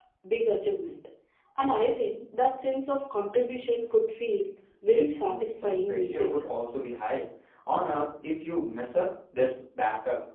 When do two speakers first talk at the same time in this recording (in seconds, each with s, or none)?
4.9 s